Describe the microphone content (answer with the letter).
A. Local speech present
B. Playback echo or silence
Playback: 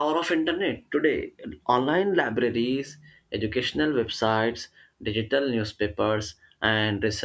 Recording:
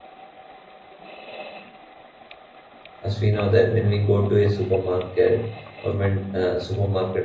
A